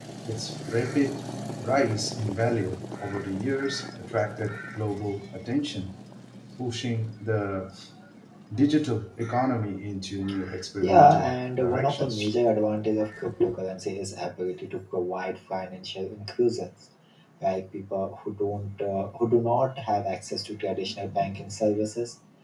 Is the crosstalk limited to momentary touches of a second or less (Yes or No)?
No